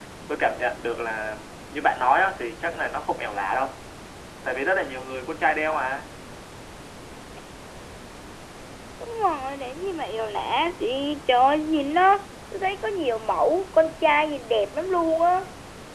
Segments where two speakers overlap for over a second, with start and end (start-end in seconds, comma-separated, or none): none